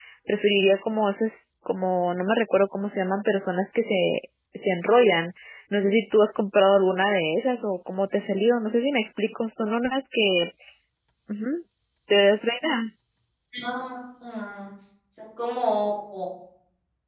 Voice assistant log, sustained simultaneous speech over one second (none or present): none